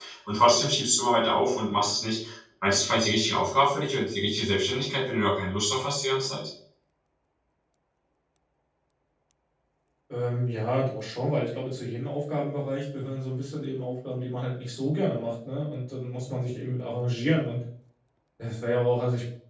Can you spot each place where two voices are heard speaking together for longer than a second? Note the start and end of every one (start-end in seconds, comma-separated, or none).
none